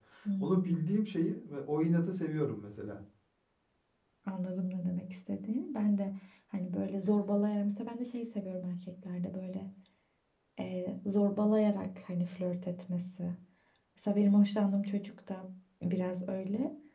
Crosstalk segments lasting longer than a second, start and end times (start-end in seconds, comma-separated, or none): none